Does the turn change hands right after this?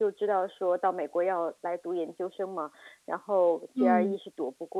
No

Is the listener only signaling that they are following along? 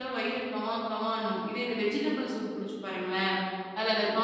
Yes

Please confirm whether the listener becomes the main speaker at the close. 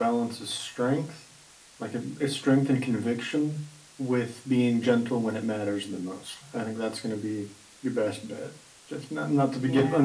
No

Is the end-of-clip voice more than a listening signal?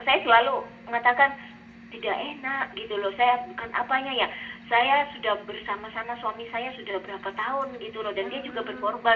No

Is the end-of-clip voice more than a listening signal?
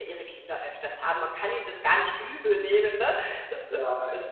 No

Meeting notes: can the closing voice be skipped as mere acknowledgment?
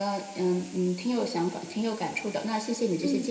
No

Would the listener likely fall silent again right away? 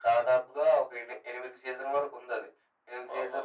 Yes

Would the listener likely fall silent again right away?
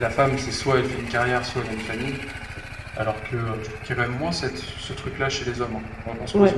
No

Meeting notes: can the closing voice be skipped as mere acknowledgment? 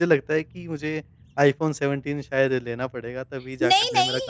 No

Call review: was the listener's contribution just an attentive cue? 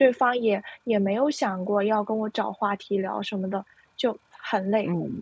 No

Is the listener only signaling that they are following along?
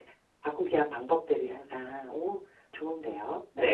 No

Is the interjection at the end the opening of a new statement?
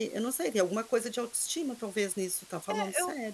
Yes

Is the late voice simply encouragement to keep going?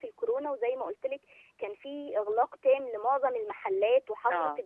Yes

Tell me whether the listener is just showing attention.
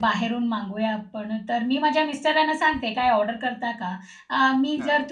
Yes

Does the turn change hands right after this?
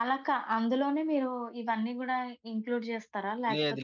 Yes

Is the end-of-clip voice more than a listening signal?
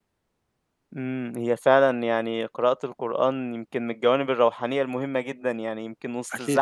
No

